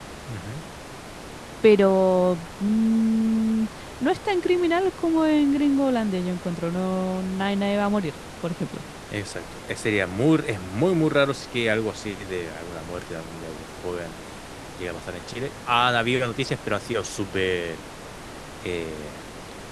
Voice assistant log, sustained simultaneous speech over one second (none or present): none